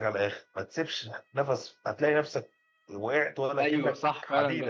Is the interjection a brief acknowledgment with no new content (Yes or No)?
No